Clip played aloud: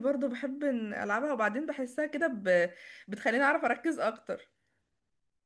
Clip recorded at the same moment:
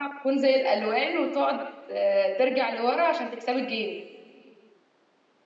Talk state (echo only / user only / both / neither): user only